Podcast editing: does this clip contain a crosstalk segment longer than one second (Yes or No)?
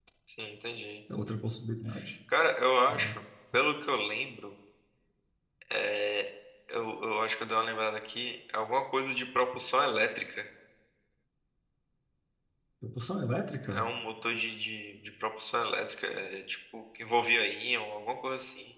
No